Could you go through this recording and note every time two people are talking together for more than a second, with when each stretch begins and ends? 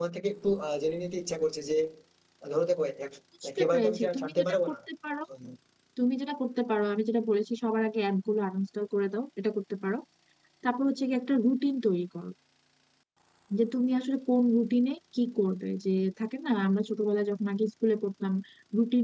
3.4-4.8

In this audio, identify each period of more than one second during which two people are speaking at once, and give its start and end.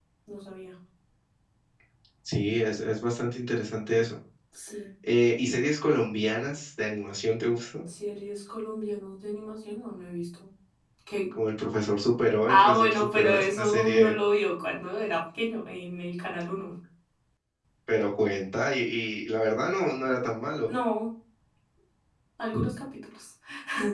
12.5-14.2

